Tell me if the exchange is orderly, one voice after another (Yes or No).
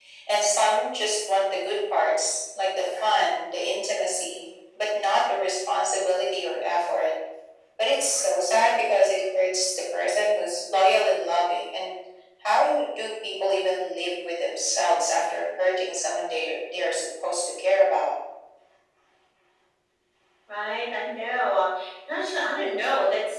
Yes